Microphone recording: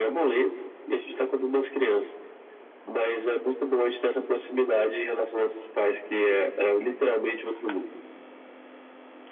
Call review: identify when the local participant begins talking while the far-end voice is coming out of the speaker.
none

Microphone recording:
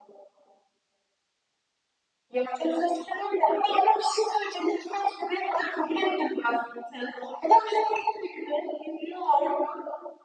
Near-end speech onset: none

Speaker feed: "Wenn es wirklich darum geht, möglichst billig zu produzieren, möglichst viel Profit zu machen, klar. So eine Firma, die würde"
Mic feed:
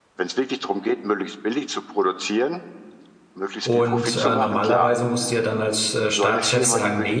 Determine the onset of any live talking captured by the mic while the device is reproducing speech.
3.6 s

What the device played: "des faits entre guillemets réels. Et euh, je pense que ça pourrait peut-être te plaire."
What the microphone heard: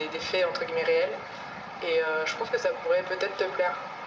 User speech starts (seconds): none

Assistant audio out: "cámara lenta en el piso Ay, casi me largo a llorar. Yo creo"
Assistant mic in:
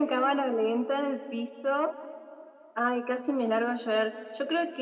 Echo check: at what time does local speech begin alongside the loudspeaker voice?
none

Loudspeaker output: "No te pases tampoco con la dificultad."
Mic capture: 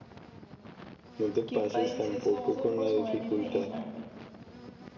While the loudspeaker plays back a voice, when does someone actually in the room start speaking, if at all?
1.4 s

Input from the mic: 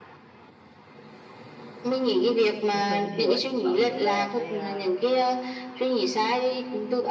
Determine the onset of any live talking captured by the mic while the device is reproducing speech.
2.7 s

